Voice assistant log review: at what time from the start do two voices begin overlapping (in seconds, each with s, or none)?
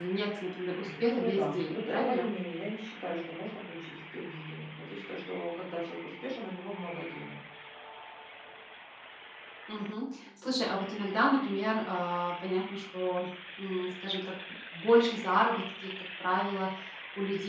1.0 s